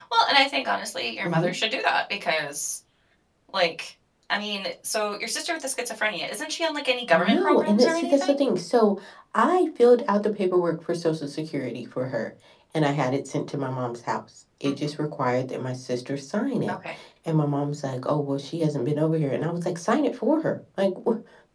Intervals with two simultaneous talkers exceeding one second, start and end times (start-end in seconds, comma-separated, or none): 7.1-8.4